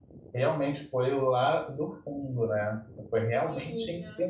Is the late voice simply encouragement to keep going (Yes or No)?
Yes